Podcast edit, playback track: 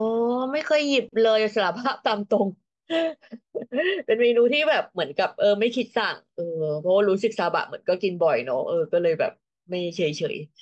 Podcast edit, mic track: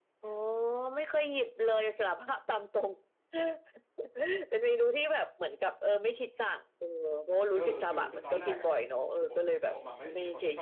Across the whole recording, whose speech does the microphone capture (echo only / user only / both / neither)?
both